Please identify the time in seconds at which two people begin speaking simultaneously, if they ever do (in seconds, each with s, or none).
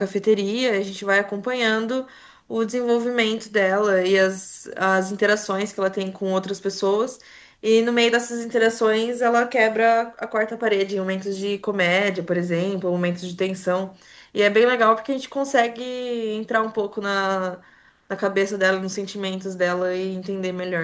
none